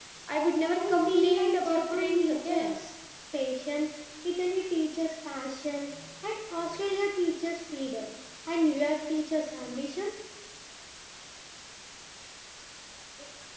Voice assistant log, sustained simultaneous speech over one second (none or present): present